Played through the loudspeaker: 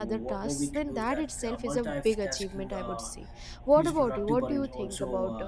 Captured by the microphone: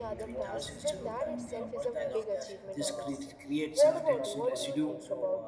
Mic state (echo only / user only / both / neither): both